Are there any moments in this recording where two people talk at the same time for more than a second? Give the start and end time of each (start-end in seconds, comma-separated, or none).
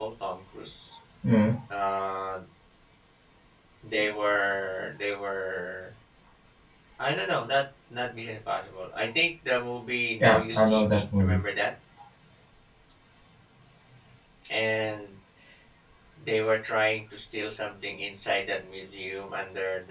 10.2-11.4